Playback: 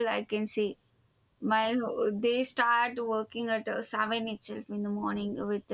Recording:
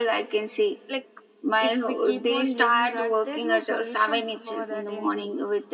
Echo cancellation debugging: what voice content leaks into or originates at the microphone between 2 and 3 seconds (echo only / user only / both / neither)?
both